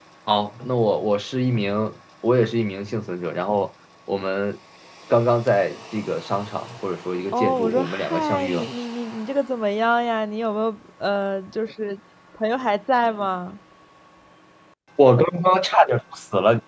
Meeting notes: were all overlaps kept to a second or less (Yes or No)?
No